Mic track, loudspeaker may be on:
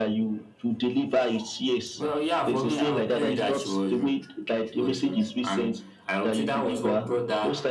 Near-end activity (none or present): none